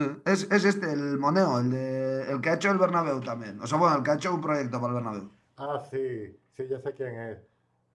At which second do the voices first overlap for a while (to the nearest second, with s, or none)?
none